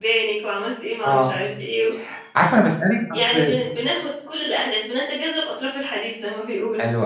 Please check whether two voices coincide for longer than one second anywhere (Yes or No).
No